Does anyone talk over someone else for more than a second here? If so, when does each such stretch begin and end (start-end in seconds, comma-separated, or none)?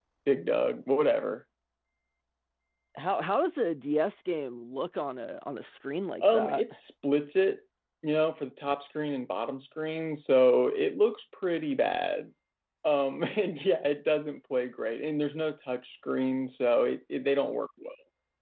none